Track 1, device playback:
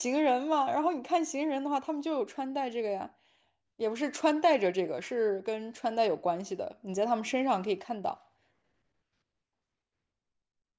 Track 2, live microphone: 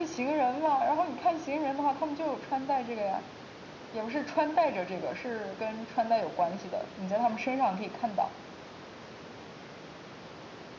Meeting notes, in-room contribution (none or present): none